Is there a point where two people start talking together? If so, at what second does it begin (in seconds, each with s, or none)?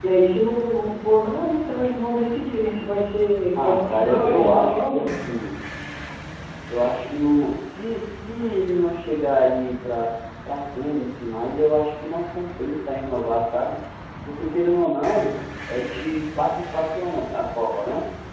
3.6 s